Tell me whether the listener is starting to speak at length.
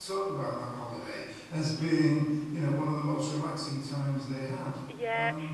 Yes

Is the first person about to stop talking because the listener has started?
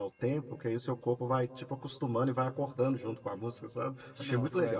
Yes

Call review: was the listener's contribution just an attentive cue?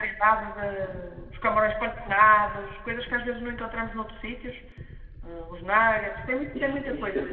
No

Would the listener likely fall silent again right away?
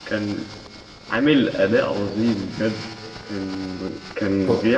Yes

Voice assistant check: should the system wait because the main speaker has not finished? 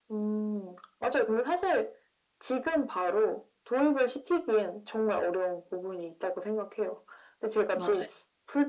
Yes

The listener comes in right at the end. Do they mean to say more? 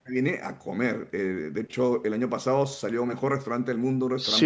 Yes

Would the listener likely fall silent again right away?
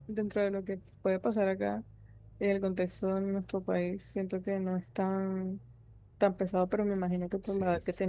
Yes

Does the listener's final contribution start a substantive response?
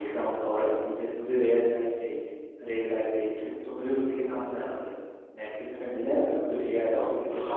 Yes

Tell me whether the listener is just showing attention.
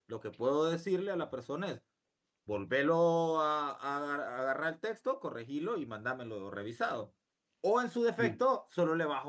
Yes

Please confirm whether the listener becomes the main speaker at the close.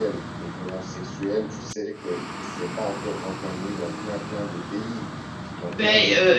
Yes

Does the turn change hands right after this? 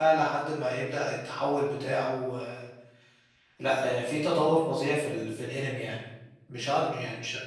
No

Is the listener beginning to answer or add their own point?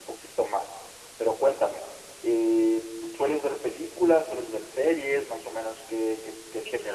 Yes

